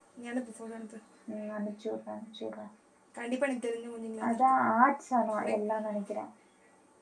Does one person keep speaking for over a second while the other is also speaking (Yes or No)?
No